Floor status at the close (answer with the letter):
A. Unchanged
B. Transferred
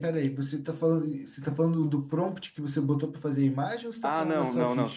B